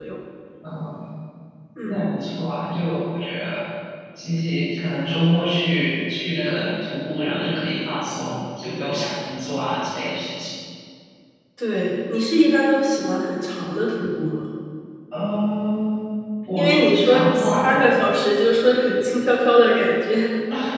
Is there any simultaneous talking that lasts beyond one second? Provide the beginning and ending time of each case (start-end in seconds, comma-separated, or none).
16.6-18.2